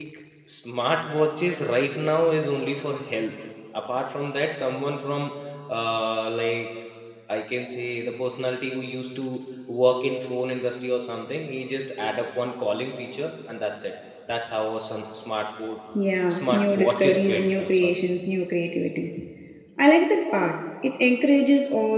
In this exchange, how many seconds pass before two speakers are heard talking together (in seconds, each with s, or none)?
16.4 s